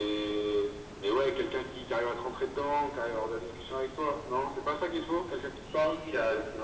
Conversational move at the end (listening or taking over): taking over